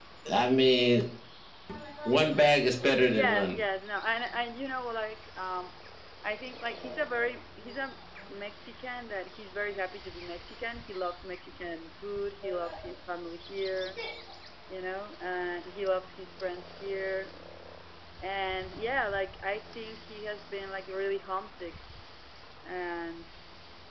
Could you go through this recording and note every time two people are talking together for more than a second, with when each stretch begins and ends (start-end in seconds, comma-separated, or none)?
none